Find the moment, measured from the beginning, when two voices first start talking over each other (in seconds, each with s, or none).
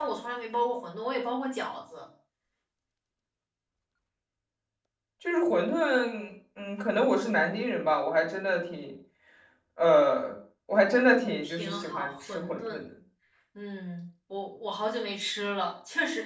11.4 s